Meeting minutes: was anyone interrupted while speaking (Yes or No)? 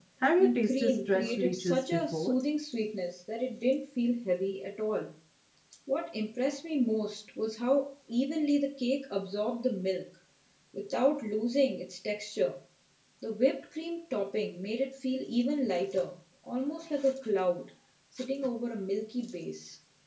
Yes